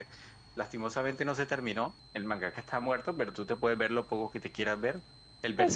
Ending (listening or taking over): listening